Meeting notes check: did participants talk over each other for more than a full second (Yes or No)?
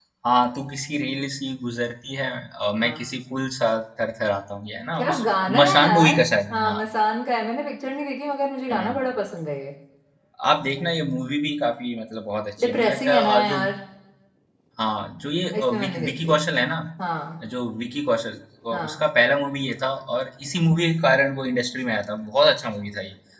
Yes